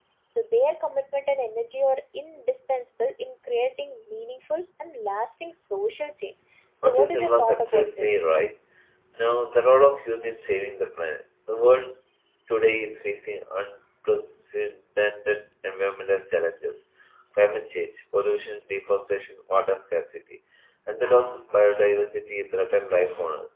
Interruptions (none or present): present